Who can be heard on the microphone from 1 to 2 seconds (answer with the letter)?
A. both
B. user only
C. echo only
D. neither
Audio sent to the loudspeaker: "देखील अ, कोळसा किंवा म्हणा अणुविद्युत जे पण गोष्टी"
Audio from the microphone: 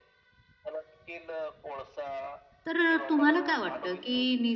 C